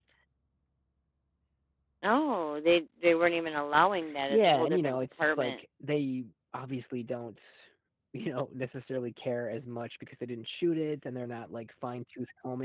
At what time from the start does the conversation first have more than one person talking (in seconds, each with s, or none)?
4.3 s